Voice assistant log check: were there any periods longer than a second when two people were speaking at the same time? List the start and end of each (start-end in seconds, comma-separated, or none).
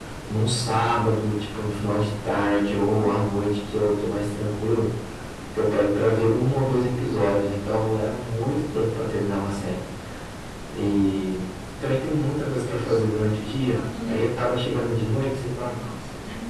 12.5-14.2